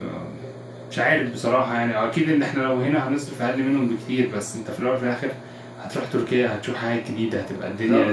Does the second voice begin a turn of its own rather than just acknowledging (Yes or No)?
Yes